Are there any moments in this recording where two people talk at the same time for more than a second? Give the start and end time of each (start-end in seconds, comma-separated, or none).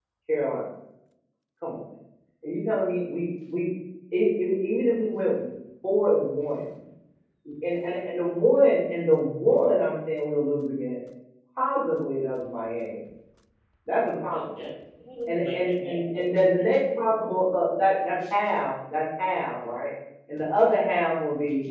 15.3-16.6